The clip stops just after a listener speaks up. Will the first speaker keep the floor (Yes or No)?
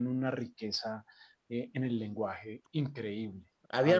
No